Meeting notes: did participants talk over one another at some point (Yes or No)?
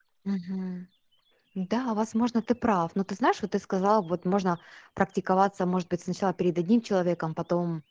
No